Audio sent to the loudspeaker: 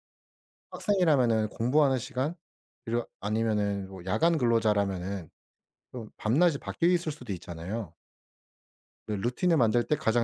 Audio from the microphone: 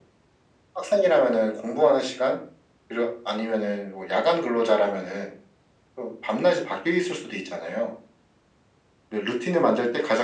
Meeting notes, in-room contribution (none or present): none